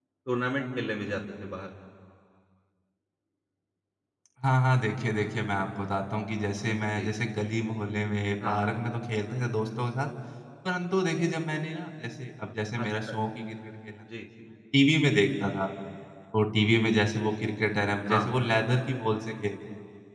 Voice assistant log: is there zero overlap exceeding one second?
Yes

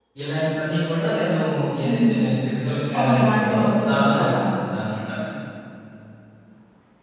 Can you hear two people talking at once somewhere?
Yes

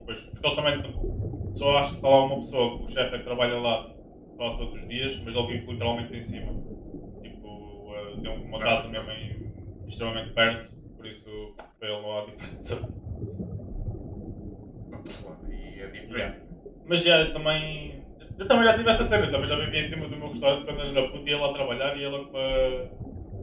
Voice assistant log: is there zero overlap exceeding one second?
Yes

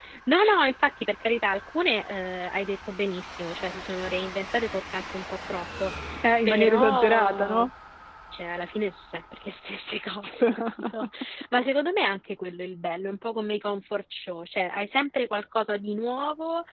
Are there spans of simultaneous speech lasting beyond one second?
Yes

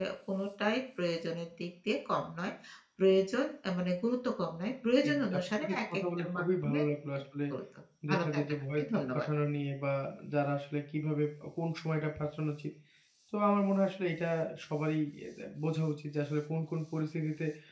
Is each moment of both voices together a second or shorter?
No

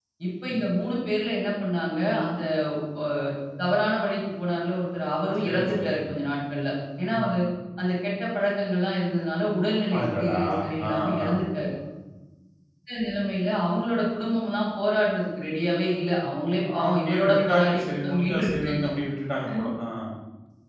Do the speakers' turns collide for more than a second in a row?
Yes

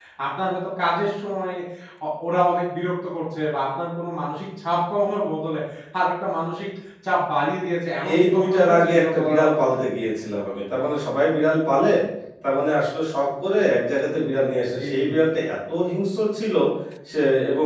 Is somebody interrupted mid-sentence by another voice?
Yes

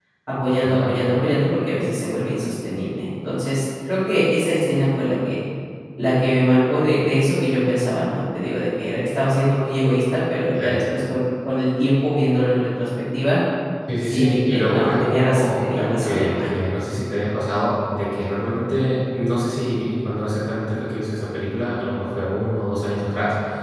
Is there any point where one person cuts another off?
Yes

